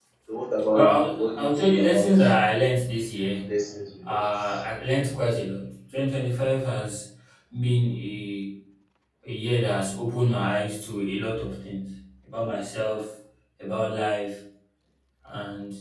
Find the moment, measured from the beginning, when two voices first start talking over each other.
0.7 s

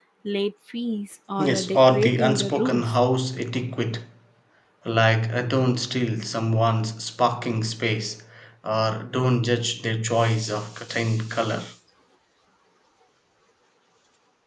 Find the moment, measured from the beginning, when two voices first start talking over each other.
1.4 s

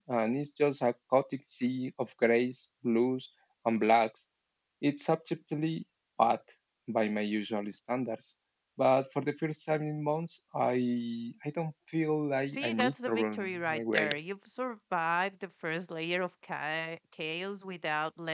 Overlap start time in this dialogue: 12.5 s

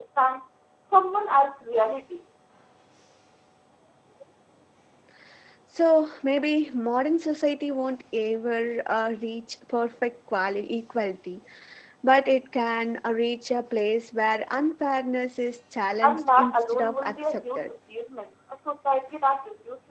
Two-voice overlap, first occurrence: 16.0 s

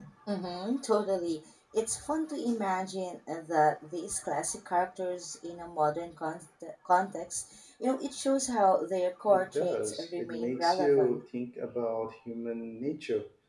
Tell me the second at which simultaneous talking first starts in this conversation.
9.3 s

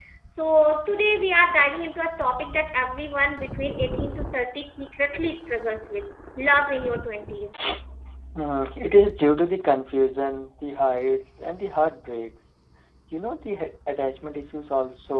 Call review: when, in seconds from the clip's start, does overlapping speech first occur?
none

